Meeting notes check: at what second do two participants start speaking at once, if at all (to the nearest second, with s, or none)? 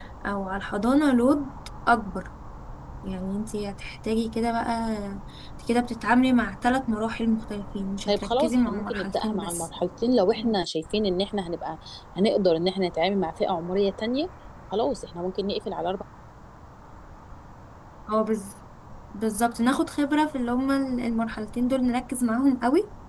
8 s